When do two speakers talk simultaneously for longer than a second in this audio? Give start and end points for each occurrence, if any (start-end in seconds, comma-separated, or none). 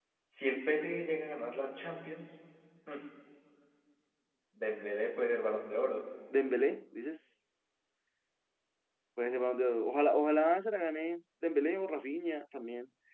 none